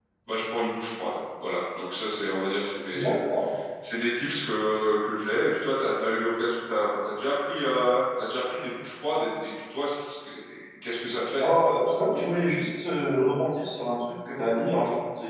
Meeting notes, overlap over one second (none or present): none